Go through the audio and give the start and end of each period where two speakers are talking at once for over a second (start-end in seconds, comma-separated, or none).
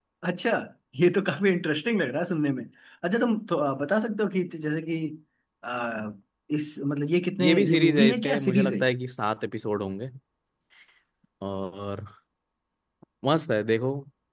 7.4-8.8